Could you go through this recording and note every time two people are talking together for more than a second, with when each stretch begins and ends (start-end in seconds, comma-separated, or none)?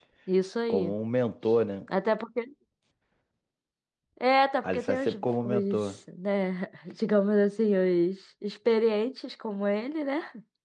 4.6-6.0